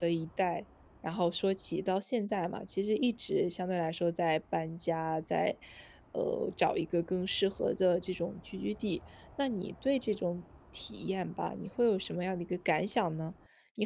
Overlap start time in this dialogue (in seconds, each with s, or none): none